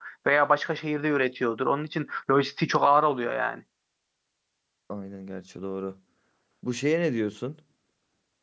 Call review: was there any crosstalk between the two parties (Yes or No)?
No